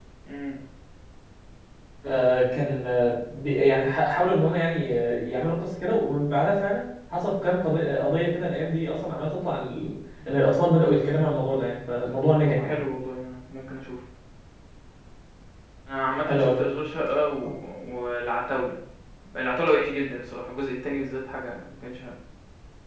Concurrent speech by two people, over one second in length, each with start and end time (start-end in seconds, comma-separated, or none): none